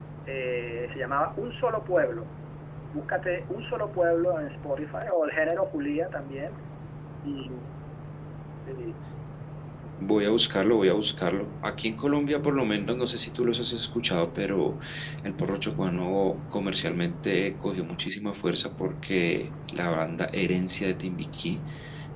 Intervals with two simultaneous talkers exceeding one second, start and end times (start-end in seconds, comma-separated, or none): none